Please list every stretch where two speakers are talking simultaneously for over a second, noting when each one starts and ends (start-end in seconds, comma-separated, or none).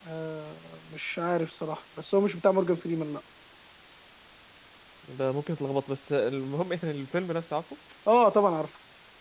none